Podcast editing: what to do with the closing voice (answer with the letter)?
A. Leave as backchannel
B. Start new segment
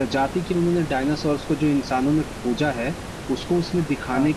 A